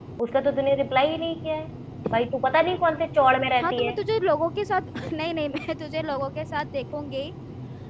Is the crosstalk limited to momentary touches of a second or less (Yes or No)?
Yes